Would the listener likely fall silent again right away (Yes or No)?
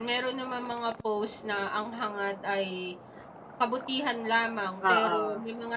Yes